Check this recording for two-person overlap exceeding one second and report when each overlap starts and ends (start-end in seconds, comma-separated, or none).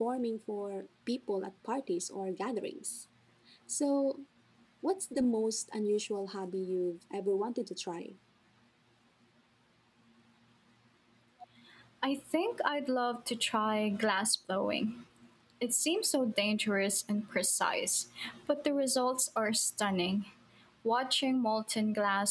none